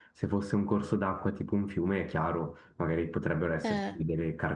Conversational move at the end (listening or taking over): listening